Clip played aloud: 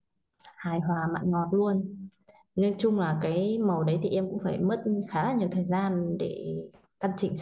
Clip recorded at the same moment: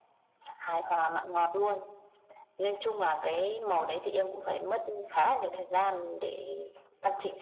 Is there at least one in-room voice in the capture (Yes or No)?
No